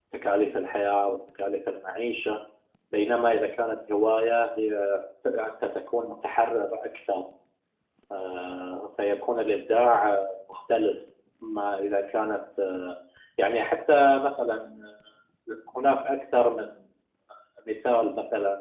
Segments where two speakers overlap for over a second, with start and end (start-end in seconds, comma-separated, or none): none